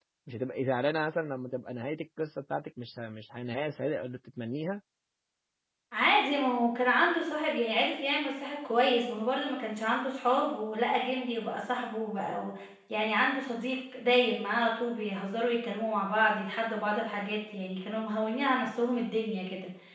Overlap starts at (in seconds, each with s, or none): none